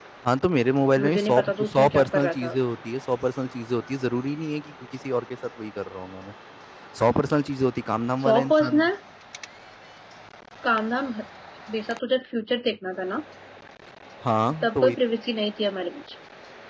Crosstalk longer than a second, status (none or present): present